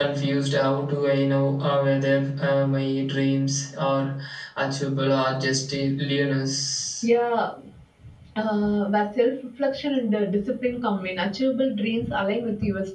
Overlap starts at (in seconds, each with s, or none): none